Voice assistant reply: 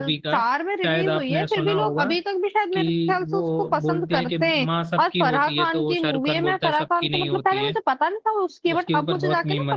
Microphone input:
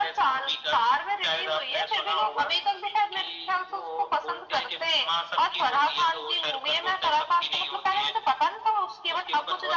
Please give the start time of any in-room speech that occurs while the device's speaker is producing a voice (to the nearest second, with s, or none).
none